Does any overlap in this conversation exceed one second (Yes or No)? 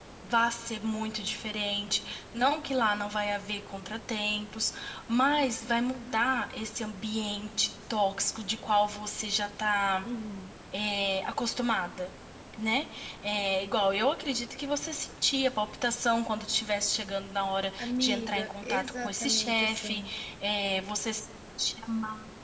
Yes